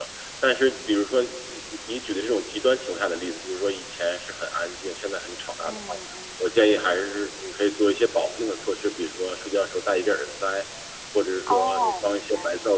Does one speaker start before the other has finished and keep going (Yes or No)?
Yes